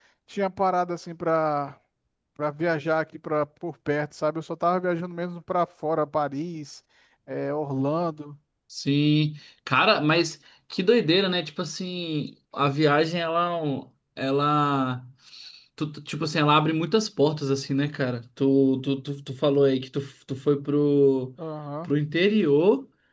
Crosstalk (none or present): none